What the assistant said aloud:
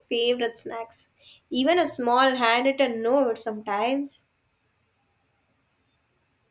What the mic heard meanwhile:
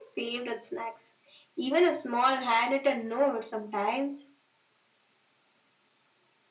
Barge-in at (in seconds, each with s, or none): none